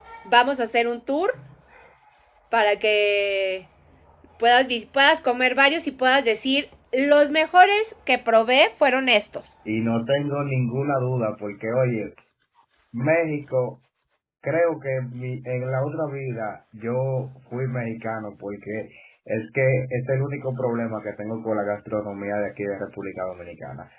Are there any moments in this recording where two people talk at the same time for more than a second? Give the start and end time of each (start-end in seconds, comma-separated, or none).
none